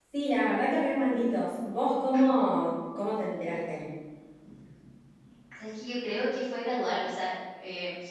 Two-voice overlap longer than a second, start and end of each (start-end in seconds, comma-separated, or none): none